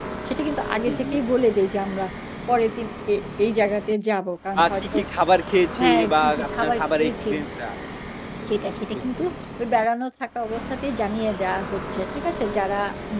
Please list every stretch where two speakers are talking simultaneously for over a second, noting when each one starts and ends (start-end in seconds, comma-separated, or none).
5.8-7.3